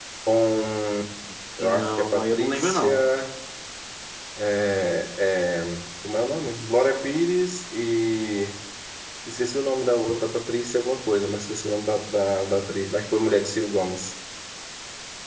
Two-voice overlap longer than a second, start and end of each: 1.6-3.1

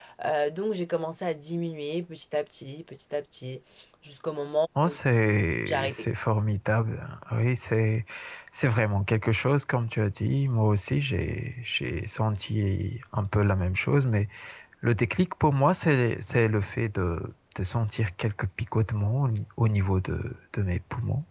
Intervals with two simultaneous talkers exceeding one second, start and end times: none

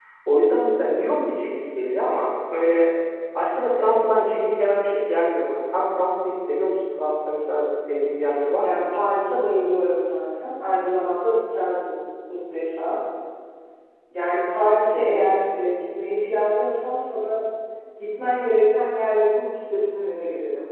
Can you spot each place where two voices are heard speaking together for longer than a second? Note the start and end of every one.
none

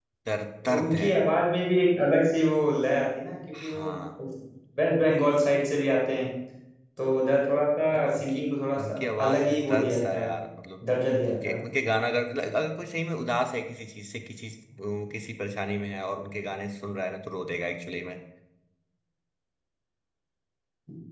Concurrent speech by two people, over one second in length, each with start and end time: 8.8-10.3

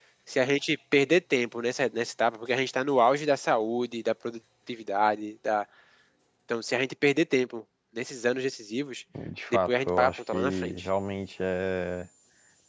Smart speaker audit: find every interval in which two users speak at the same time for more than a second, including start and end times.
9.7-10.9

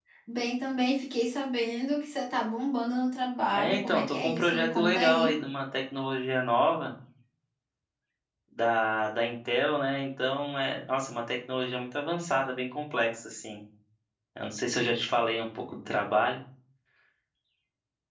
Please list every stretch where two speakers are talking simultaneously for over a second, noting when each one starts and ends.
3.5-5.3

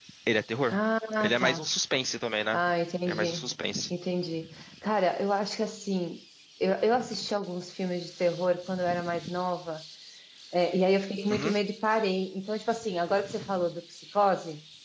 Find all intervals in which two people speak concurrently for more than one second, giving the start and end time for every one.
none

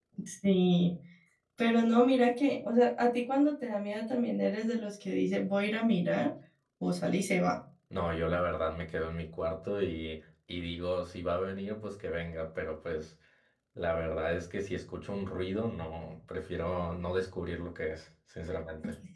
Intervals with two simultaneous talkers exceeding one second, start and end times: none

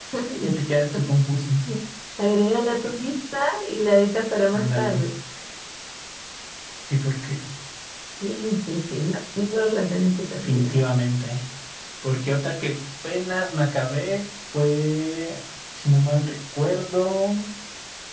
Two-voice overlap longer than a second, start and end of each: none

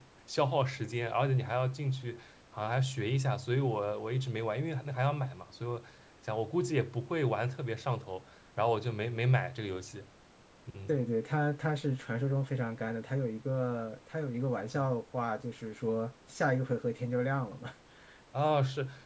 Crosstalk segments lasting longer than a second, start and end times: none

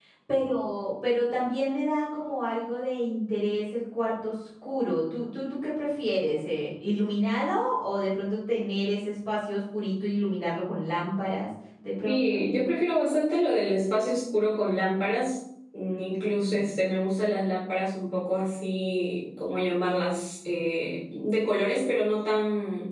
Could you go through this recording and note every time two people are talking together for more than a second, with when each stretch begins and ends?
none

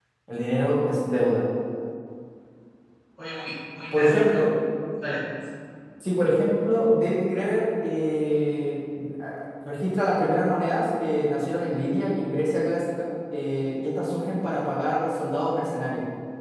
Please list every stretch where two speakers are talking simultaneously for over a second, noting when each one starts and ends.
none

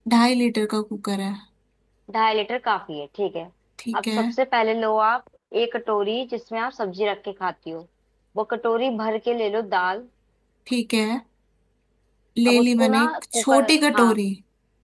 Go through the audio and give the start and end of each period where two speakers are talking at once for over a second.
12.5-14.2

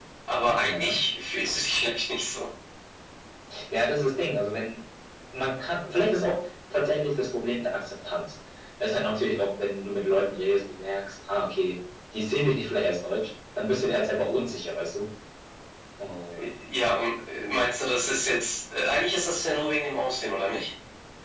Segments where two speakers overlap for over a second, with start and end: none

